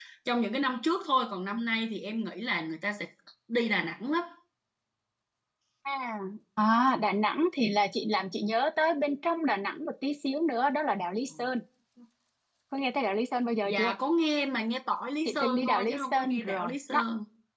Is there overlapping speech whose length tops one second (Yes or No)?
Yes